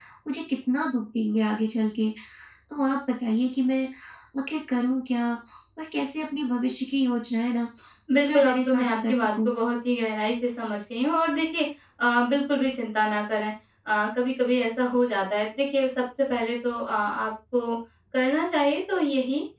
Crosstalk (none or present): present